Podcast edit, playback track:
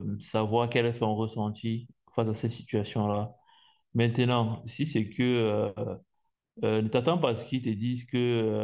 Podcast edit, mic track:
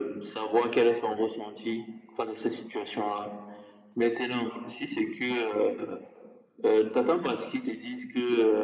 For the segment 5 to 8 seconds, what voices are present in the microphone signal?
echo only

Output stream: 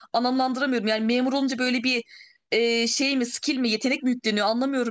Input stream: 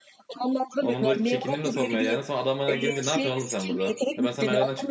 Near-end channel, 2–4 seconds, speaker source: both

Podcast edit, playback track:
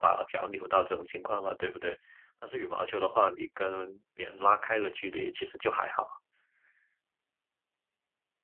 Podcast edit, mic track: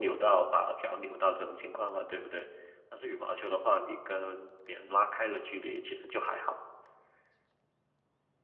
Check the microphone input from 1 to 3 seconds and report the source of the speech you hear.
echo only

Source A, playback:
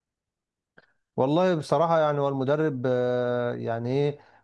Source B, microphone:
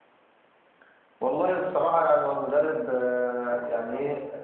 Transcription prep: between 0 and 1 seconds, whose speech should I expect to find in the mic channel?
neither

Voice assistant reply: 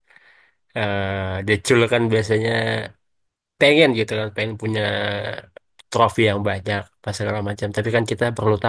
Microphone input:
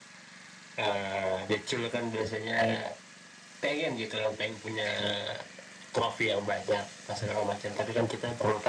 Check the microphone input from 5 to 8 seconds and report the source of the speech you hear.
echo only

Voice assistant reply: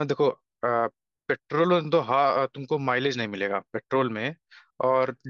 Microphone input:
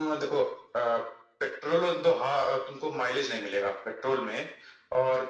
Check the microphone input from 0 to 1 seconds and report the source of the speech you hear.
echo only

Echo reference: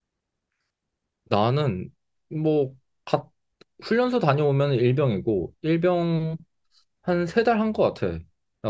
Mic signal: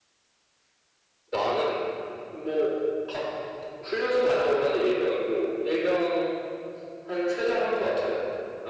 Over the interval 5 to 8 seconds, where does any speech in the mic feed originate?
echo only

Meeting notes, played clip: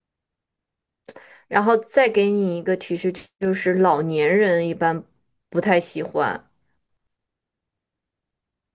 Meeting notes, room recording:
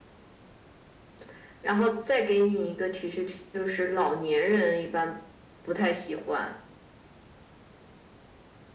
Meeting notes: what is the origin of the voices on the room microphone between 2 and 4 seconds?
echo only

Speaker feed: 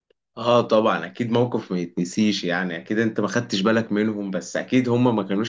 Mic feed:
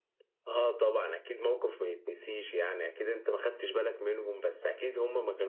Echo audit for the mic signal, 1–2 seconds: echo only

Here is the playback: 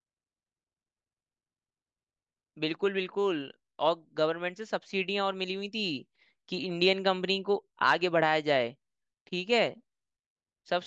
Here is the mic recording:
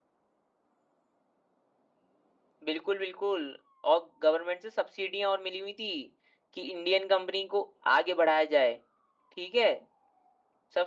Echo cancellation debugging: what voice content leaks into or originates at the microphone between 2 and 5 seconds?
echo only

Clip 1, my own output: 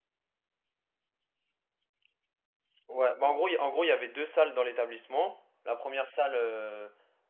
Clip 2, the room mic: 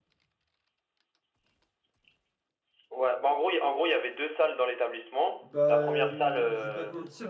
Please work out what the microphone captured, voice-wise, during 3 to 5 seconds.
echo only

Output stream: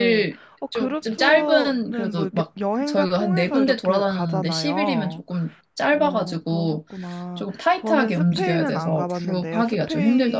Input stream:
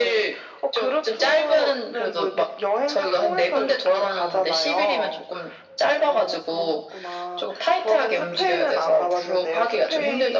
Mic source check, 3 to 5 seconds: echo only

